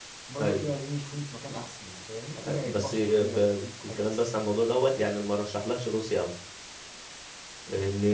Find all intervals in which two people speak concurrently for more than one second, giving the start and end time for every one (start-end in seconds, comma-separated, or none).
2.5-4.2